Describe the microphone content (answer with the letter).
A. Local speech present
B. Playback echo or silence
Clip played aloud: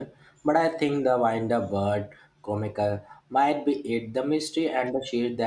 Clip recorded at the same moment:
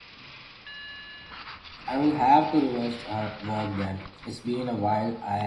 A